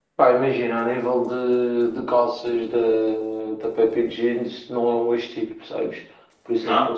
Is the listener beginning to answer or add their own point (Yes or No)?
No